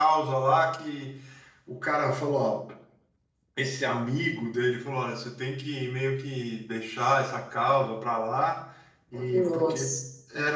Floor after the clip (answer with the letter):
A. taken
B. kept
B